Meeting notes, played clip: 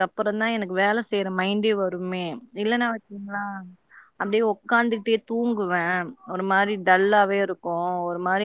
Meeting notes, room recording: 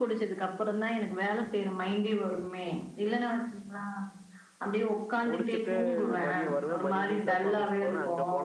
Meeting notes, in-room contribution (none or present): present